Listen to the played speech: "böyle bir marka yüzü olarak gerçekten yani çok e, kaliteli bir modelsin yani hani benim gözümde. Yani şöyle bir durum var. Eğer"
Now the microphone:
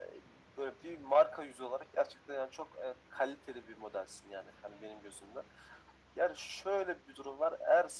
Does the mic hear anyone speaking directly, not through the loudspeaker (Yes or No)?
No